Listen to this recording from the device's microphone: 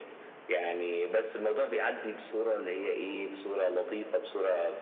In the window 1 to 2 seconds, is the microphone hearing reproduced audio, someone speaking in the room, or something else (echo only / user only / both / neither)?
echo only